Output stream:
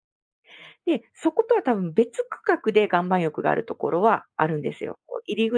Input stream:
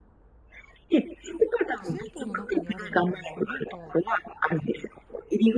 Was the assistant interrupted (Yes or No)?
Yes